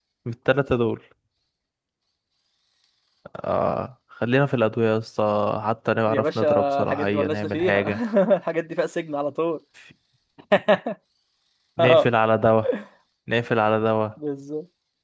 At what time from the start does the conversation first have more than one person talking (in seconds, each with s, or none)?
6.1 s